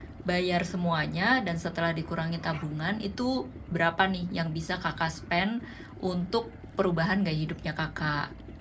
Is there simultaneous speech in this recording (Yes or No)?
No